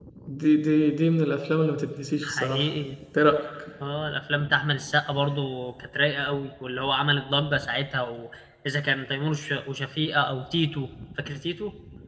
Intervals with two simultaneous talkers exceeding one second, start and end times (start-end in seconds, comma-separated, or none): none